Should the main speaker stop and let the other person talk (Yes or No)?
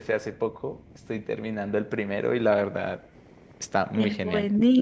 Yes